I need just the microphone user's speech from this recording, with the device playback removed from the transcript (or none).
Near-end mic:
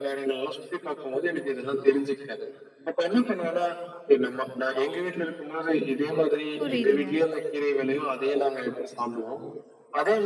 புரியுதுங்க.